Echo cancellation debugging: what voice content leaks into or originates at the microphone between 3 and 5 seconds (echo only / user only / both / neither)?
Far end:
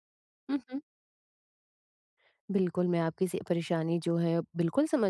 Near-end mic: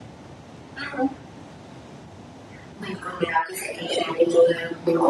echo only